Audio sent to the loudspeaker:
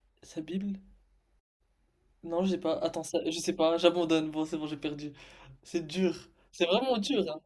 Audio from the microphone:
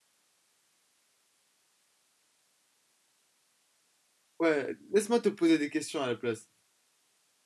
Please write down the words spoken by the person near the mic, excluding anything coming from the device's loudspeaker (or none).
Ouais, laisse-moi te poser des questions à la place.